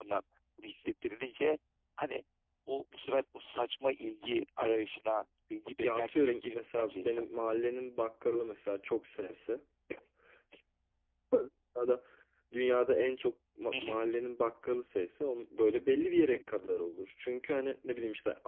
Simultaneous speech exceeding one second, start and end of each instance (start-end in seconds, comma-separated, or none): 5.8-7.2